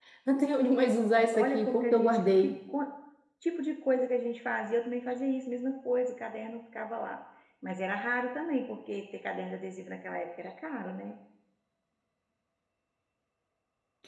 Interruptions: present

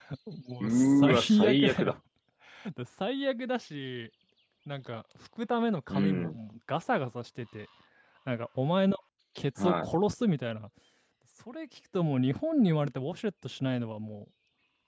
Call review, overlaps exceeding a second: present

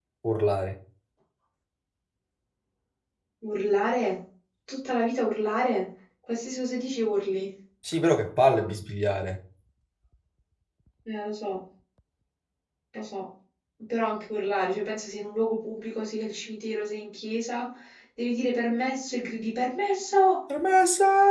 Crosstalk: none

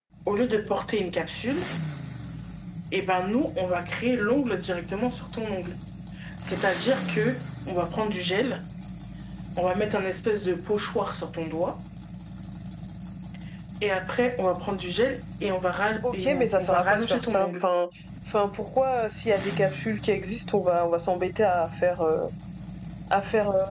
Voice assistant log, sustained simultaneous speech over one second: present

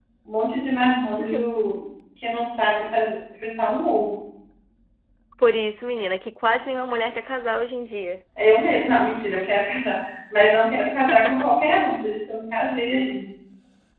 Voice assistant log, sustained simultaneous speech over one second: none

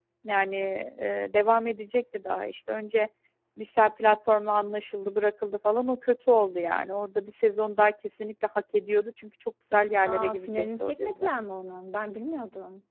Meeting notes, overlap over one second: present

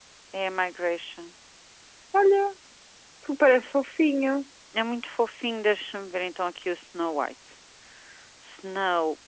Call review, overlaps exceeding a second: none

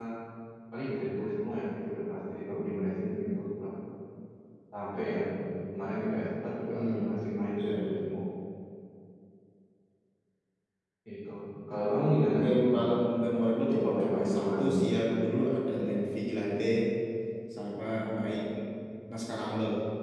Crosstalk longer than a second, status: present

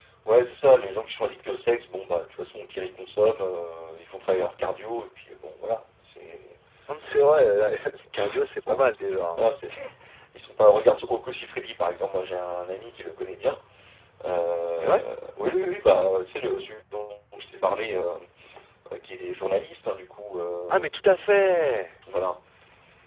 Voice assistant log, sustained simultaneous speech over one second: none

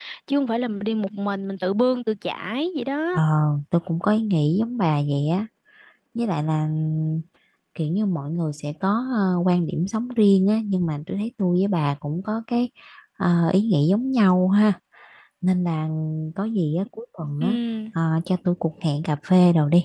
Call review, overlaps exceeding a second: none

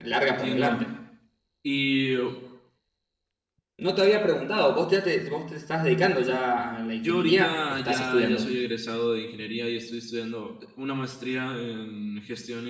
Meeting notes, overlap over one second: present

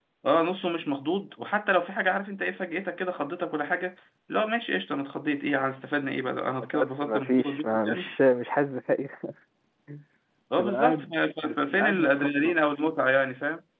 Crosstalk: present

